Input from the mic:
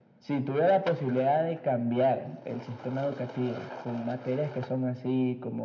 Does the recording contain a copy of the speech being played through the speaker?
Yes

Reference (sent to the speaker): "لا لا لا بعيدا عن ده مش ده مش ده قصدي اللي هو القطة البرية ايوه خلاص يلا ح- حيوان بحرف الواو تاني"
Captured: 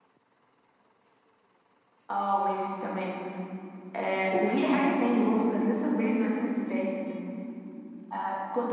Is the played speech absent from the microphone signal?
Yes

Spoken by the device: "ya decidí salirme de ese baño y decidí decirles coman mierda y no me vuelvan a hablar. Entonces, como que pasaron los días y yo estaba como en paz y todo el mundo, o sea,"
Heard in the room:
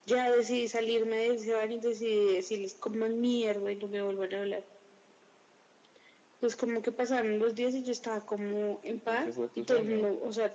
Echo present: Yes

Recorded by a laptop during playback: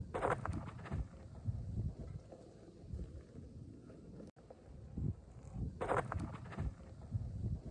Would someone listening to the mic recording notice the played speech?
No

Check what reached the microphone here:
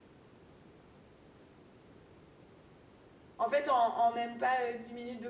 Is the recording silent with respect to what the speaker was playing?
Yes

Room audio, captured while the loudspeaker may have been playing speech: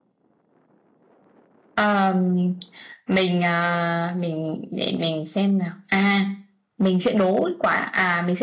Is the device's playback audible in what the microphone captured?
No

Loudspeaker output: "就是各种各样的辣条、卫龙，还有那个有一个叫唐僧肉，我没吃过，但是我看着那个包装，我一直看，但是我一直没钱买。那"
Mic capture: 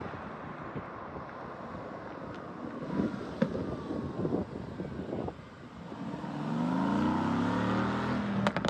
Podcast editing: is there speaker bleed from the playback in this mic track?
No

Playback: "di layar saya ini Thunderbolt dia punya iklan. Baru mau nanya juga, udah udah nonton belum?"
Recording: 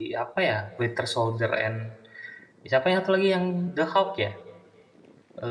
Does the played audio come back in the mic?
No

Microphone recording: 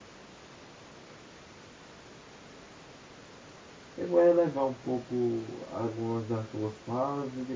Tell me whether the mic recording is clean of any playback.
Yes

